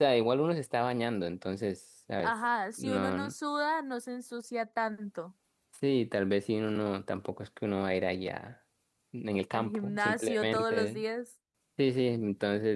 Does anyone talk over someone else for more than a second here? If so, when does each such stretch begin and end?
9.5-11.0

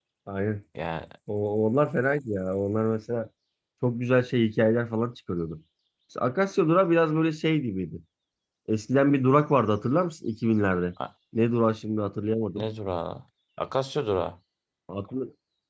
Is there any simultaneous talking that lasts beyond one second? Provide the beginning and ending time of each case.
none

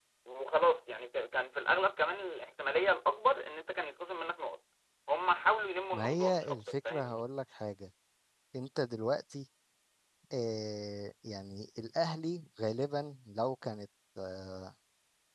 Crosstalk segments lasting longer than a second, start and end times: 5.9-7.2

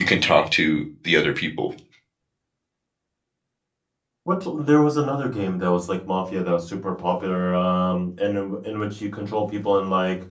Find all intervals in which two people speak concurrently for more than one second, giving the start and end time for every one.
none

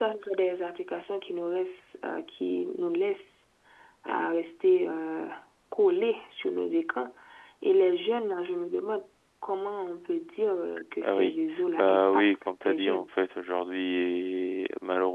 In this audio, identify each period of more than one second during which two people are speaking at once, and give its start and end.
11.8-13.1

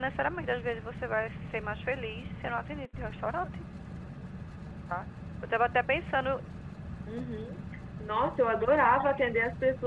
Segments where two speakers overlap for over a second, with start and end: none

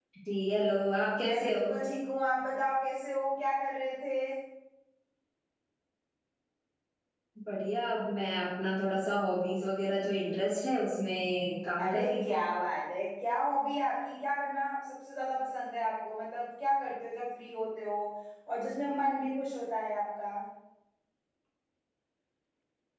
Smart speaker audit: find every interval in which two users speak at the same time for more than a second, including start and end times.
none

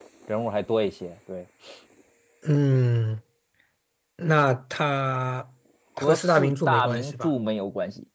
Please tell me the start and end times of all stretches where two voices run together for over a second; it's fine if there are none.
6.0-7.3

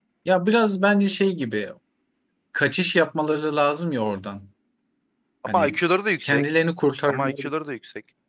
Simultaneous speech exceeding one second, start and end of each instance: none

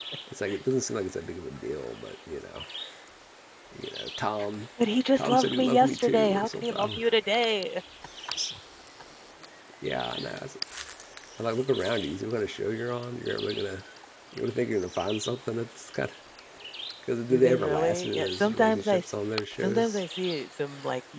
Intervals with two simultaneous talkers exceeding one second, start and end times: 5.2-7.1, 17.3-19.0

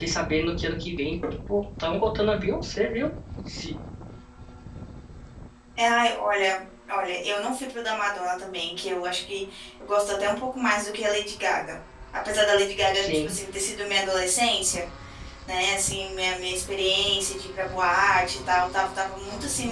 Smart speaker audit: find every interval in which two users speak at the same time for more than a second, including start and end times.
none

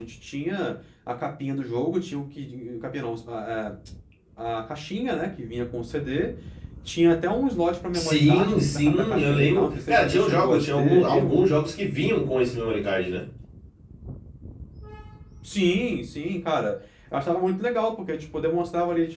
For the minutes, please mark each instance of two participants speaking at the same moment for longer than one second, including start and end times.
7.9-11.4

